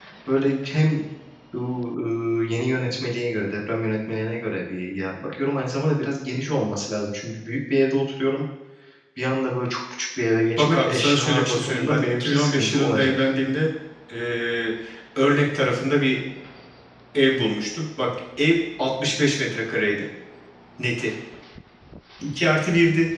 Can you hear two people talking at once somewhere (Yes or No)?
Yes